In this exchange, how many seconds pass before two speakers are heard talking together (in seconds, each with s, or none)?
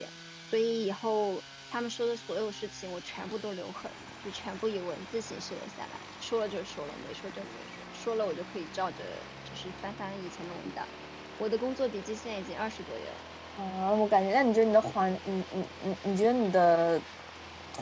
none